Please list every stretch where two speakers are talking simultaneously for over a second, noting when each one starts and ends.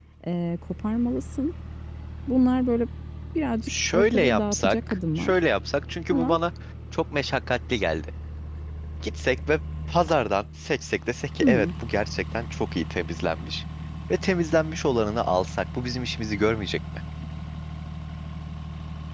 3.7-5.4

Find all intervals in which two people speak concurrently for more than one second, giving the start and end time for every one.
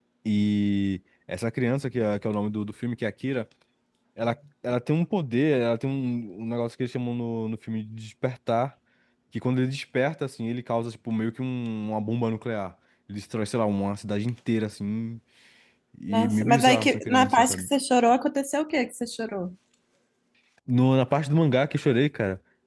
16.1-17.7

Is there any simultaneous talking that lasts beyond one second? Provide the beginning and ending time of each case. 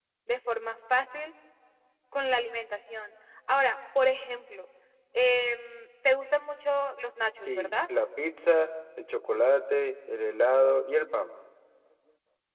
none

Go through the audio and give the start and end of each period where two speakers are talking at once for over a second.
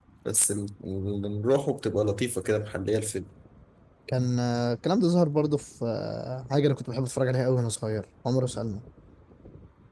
none

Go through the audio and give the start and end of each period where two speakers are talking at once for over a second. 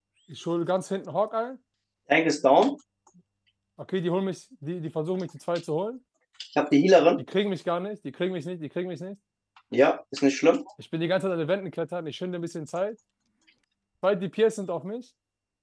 none

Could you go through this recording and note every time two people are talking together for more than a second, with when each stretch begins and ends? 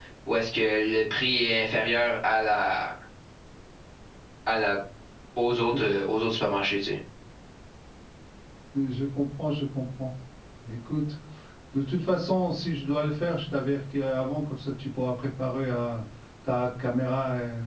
none

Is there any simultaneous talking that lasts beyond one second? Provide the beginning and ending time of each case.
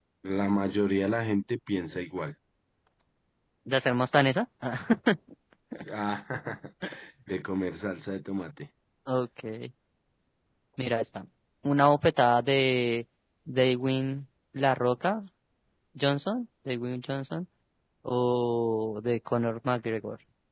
none

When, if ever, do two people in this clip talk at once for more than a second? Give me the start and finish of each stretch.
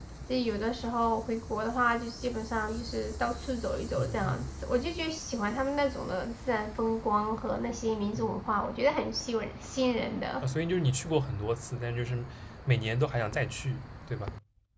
none

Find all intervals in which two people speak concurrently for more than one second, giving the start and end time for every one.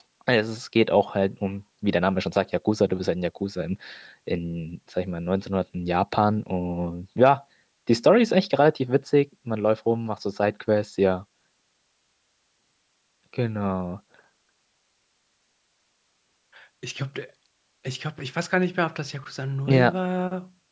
none

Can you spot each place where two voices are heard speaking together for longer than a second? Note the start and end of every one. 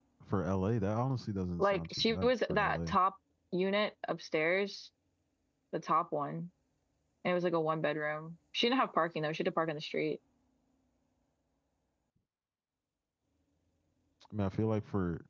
1.6-3.0

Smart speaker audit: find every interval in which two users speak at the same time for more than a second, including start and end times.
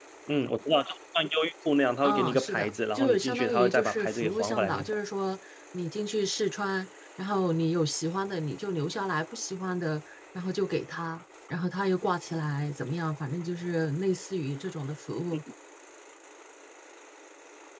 2.0-5.0

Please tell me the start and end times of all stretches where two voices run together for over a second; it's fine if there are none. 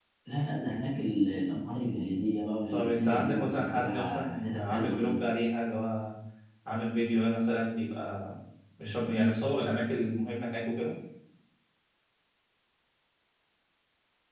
2.7-5.2

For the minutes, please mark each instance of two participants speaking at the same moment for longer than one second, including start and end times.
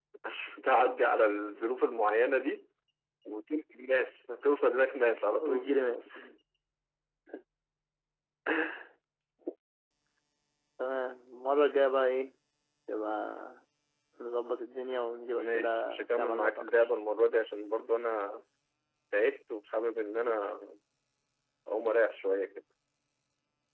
15.3-16.7

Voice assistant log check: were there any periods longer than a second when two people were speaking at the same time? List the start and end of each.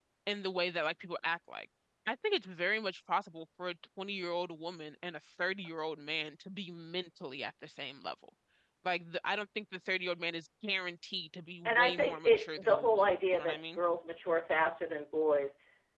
11.7-13.8

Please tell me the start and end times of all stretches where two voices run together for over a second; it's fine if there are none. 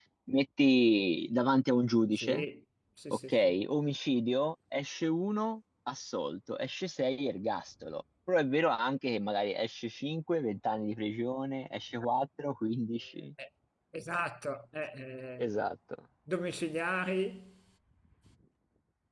none

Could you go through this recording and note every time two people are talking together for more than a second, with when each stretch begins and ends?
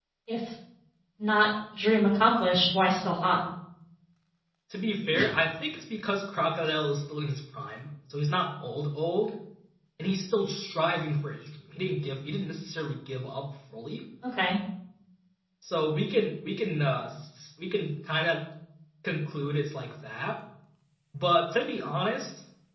none

